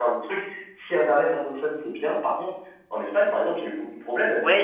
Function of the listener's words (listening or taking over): taking over